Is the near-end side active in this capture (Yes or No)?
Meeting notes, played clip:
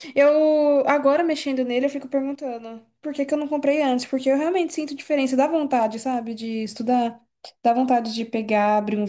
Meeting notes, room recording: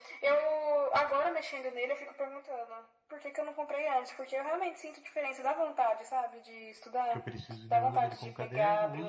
Yes